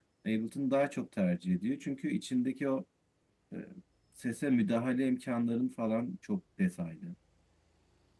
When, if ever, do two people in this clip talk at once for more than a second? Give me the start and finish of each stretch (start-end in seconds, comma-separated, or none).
none